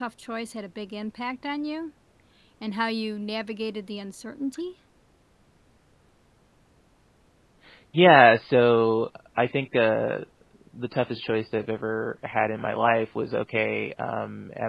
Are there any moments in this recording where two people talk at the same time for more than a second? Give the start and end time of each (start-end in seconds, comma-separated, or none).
none